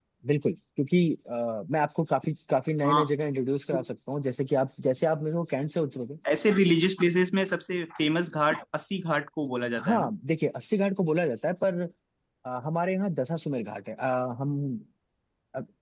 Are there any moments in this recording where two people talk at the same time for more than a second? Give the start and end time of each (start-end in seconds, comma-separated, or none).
none